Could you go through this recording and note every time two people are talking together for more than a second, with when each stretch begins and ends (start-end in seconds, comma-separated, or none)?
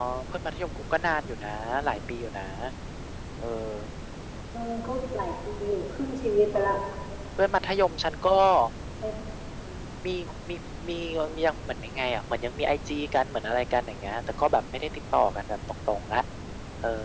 none